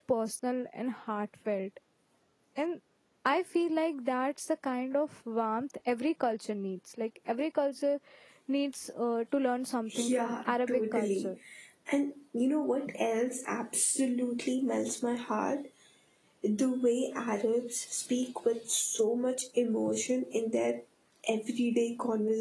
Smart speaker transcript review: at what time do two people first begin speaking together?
9.9 s

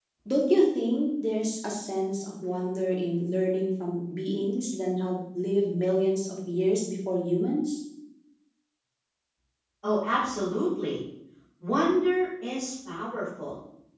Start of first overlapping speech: none

